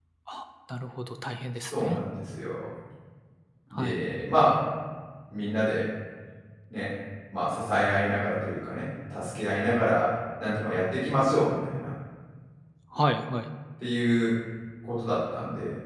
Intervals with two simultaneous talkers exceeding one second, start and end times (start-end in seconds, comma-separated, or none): none